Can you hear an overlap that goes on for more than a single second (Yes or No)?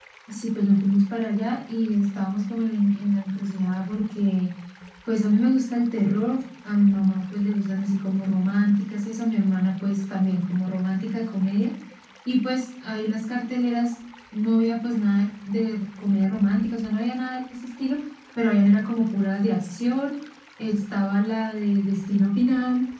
No